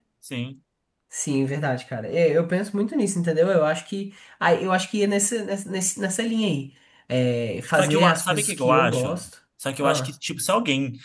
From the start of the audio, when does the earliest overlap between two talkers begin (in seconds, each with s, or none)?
7.7 s